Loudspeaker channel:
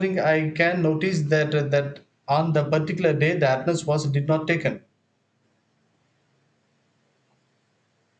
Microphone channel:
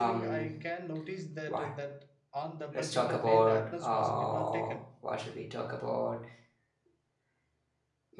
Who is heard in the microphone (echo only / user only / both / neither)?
both